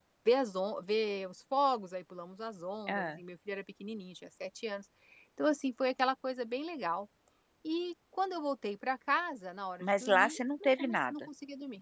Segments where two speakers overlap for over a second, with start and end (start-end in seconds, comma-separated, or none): 9.8-11.1